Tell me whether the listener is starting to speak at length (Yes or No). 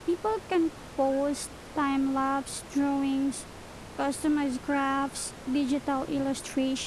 No